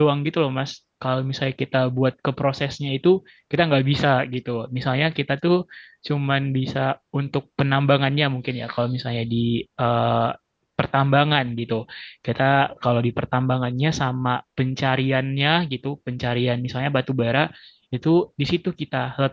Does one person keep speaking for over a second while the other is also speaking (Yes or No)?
No